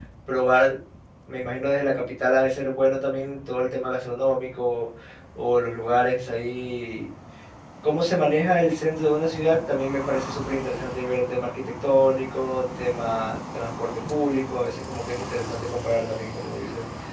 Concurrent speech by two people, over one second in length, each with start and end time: none

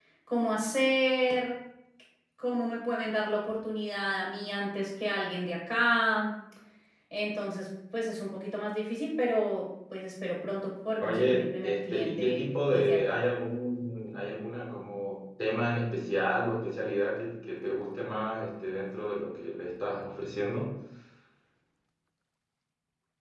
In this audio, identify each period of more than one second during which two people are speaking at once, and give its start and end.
11.0-13.2

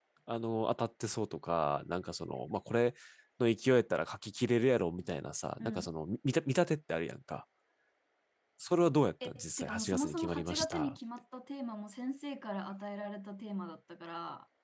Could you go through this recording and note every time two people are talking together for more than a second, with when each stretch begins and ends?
9.2-11.0

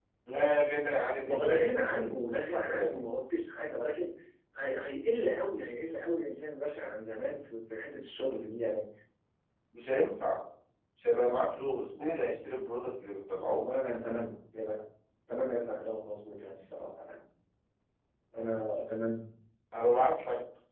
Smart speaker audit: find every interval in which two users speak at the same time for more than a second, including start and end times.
1.3-3.0

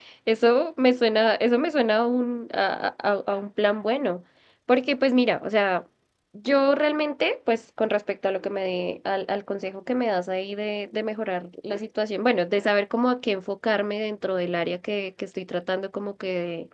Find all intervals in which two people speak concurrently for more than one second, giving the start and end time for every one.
none

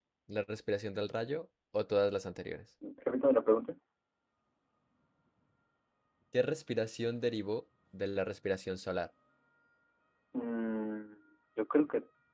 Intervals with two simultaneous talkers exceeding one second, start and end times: none

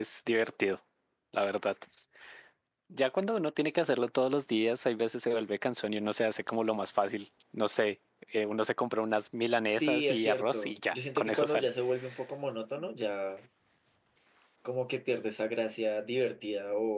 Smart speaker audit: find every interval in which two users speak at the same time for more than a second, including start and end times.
9.7-11.7

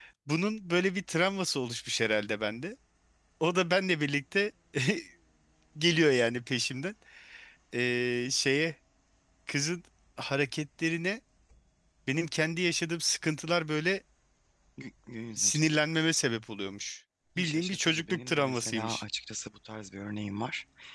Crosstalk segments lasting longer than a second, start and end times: 17.4-19.0

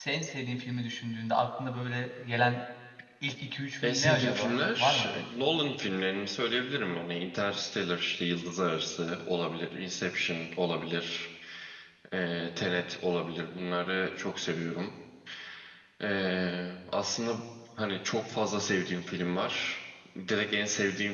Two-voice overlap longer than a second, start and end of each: 3.8-5.1

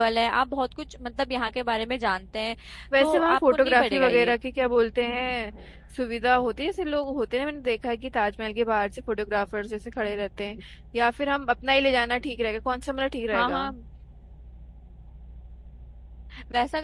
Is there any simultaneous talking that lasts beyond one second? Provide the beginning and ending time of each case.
3.0-4.3

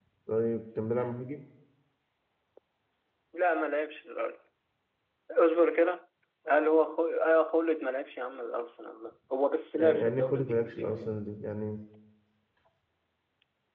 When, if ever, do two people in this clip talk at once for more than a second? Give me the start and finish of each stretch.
9.8-11.2

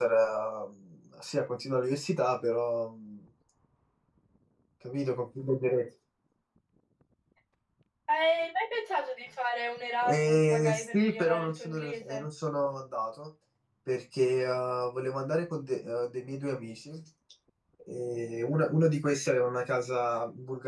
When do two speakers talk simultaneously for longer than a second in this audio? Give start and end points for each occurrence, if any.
10.0-12.2

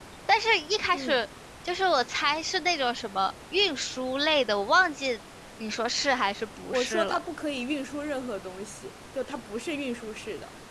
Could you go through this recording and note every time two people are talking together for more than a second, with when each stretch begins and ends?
none

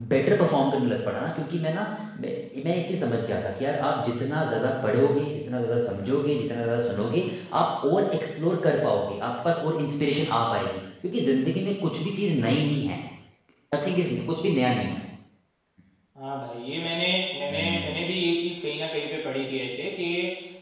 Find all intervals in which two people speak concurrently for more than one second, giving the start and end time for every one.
none

